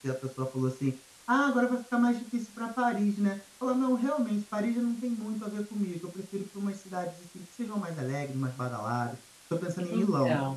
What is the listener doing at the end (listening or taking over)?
listening